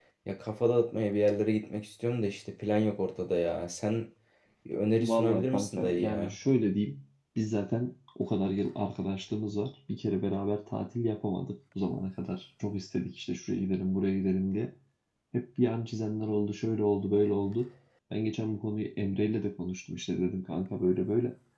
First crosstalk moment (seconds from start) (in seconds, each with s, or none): 5.0 s